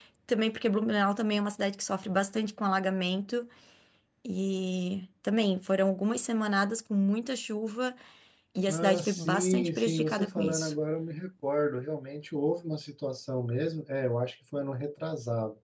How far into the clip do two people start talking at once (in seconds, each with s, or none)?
8.7 s